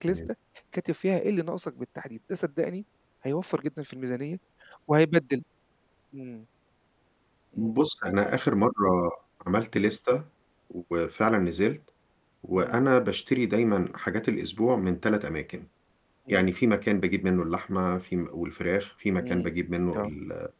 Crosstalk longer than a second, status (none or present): none